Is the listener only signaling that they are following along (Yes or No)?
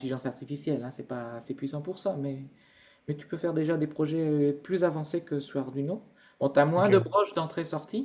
Yes